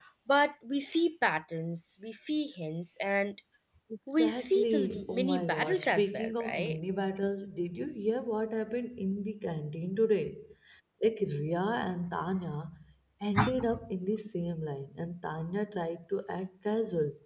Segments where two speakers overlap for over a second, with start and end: 4.1-6.8

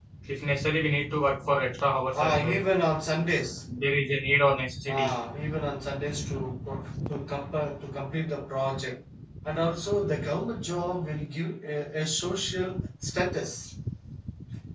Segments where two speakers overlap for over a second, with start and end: none

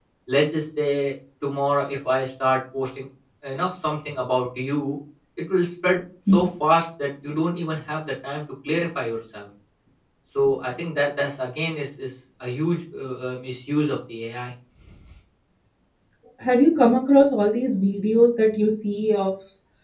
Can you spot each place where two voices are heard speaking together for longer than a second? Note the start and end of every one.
none

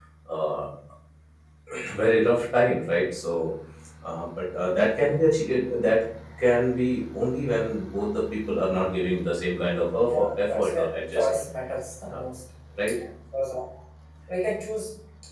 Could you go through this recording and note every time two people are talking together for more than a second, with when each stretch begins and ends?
10.1-11.4

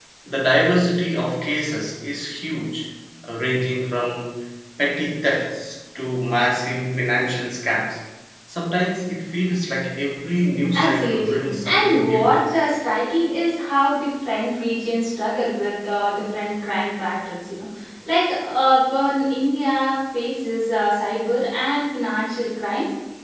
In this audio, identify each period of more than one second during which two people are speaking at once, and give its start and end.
10.7-12.3

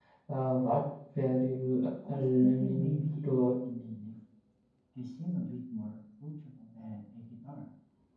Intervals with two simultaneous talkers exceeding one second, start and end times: 2.1-3.6

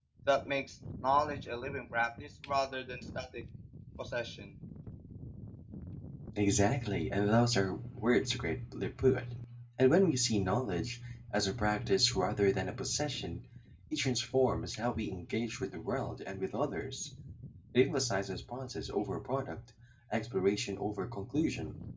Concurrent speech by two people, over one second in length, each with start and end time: none

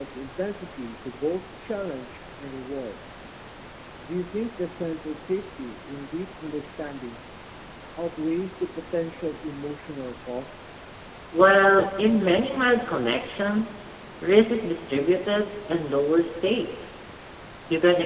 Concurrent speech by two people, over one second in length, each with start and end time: none

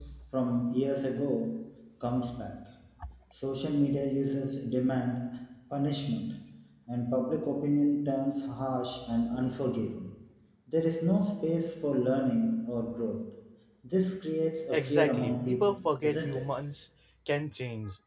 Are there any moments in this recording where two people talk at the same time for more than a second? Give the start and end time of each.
14.7-16.5

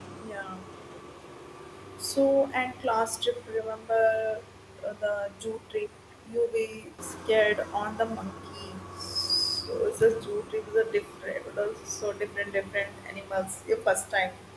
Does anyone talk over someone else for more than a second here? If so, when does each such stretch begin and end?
none

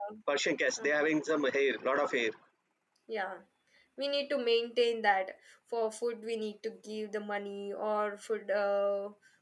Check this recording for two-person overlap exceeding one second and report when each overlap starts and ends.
none

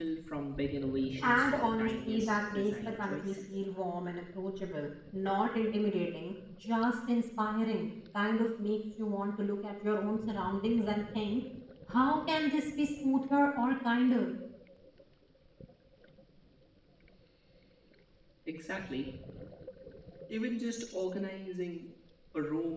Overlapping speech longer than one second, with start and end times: 1.2-3.4

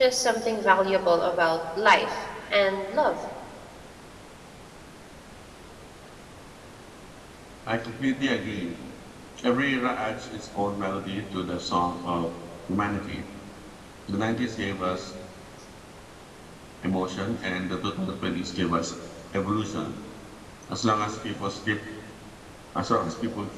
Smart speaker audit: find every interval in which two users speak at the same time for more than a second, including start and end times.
none

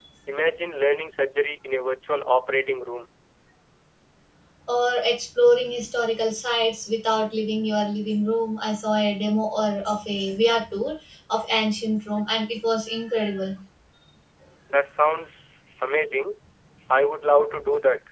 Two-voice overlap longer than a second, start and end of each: none

